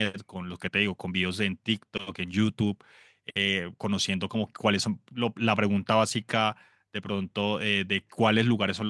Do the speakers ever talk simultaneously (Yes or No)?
No